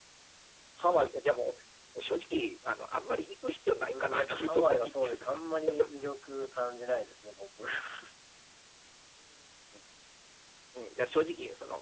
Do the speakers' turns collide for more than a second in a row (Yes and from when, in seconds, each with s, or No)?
Yes, from 3.9 s